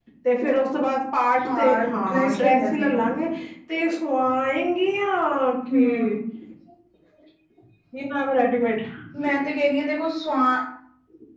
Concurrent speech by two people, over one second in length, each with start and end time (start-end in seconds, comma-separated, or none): 1.4-3.0